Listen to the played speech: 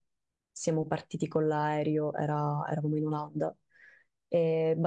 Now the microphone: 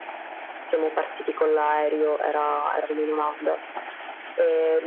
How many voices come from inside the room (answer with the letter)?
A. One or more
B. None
B